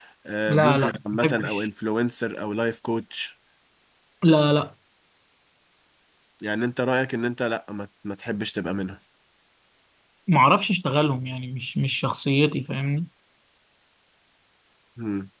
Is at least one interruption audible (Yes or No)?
Yes